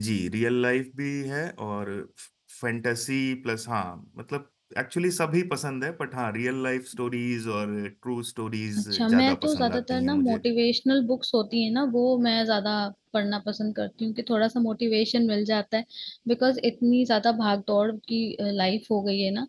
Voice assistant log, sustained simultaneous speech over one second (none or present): present